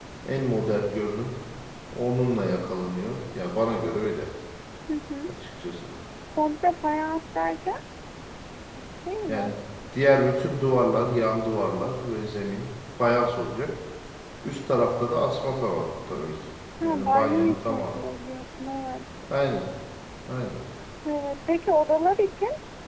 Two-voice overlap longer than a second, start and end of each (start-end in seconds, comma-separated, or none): 16.8-18.0